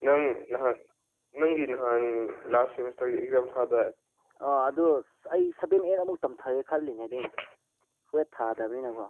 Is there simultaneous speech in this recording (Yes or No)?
No